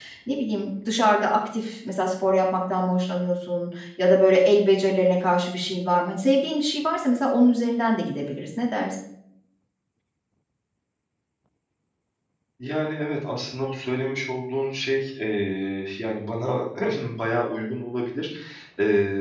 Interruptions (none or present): none